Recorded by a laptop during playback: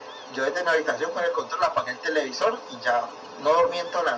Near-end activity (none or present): none